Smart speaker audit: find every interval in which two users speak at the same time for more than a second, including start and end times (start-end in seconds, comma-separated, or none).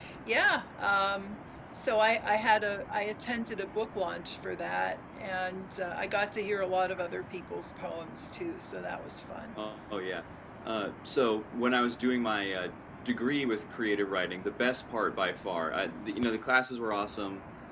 none